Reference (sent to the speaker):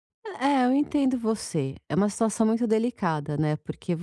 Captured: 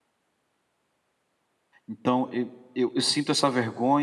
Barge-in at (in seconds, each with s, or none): 1.9 s